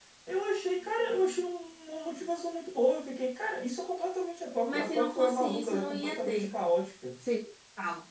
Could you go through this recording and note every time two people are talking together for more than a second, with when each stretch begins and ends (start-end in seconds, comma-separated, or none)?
4.7-6.5